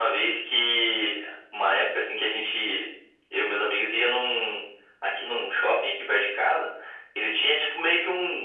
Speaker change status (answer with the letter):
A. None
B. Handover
A